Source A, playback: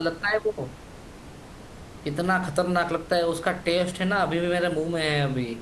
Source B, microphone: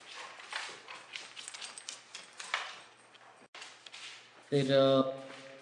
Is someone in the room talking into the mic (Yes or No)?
Yes